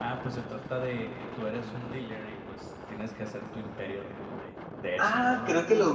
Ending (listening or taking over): taking over